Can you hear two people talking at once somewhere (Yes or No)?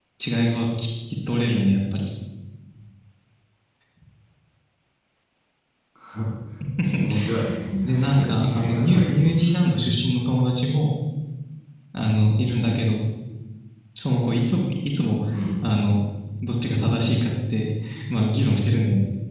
Yes